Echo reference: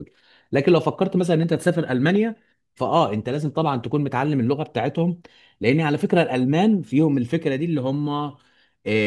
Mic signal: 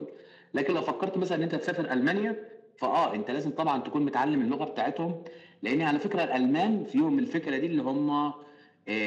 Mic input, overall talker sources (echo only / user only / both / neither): echo only